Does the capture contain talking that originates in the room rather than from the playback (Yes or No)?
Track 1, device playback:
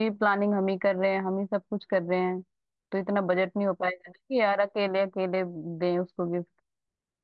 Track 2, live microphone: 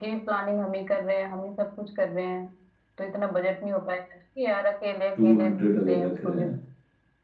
Yes